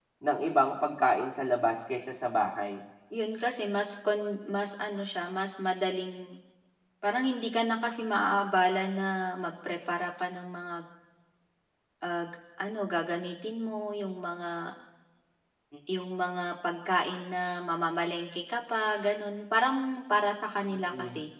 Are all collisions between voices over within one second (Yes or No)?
Yes